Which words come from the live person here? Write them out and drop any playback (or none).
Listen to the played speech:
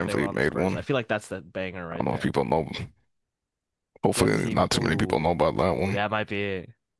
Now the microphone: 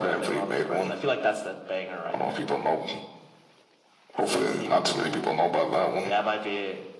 none